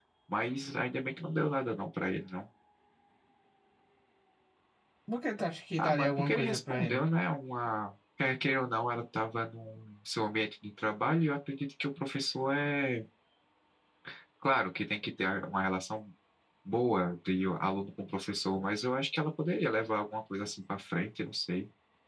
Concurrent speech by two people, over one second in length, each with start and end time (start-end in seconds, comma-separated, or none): 5.8-7.0